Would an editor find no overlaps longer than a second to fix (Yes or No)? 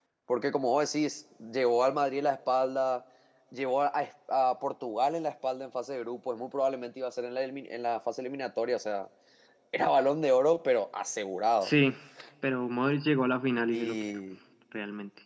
Yes